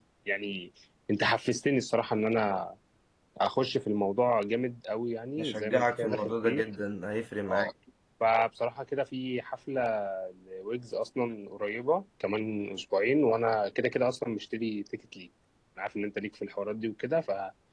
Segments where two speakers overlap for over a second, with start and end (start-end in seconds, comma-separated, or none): 5.4-6.6